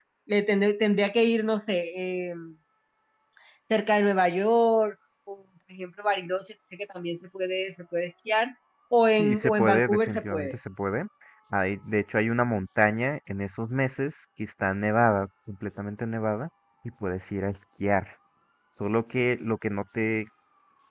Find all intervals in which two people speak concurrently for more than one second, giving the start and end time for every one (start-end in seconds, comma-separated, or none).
9.1-10.6